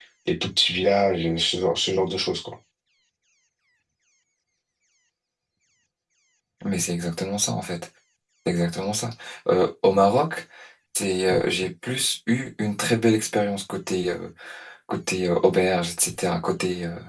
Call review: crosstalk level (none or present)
none